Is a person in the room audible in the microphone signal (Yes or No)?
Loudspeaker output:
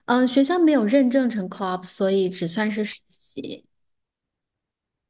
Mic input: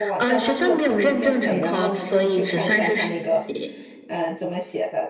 Yes